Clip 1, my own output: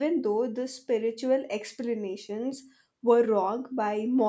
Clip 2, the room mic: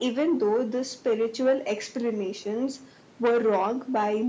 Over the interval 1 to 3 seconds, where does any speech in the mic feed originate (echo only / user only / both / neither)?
echo only